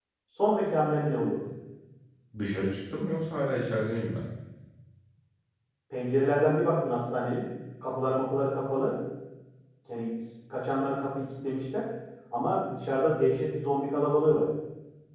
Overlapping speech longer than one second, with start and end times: none

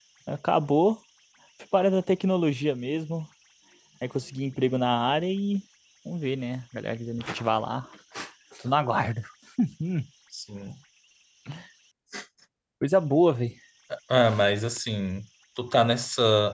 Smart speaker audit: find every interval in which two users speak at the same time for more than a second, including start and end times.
none

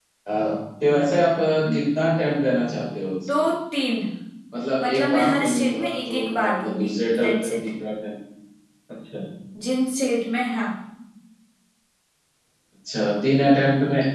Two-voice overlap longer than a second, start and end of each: 4.8-7.5

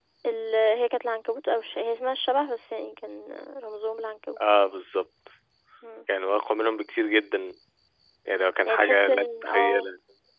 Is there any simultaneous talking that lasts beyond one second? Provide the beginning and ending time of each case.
8.7-9.9

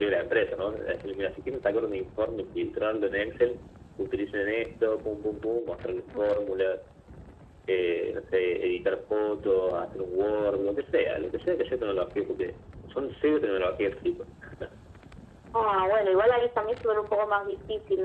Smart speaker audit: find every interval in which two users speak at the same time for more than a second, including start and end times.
none

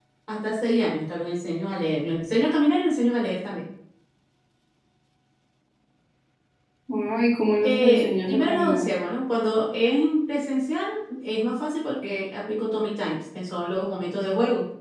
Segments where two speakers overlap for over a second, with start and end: 7.6-8.8

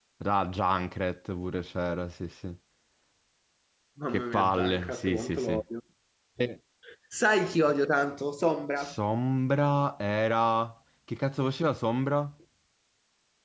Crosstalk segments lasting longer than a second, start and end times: 4.1-5.5

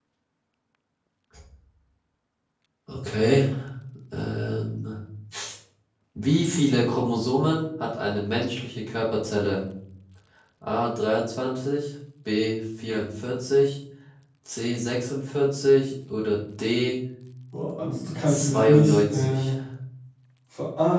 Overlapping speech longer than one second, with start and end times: 18.3-19.5

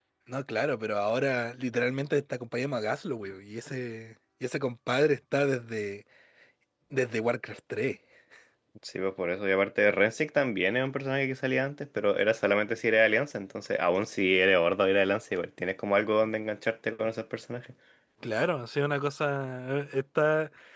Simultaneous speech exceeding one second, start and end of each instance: none

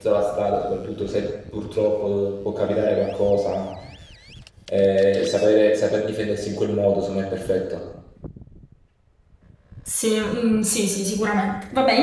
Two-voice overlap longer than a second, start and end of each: none

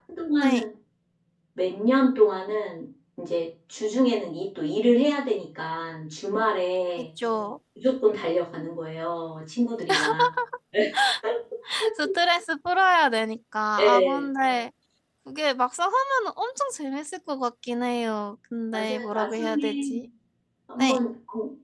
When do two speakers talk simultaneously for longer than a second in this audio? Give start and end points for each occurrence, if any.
18.7-20.0

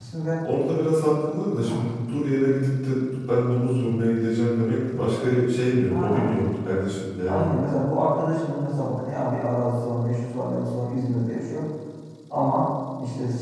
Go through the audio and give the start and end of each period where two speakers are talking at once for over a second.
none

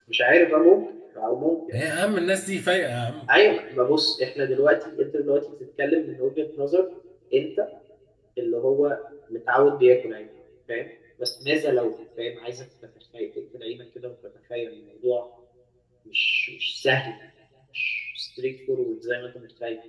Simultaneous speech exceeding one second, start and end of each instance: none

